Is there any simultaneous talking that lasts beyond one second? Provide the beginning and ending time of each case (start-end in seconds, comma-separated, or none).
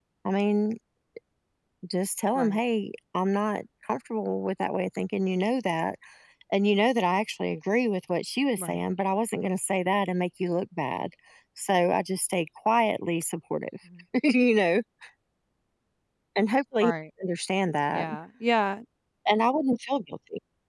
none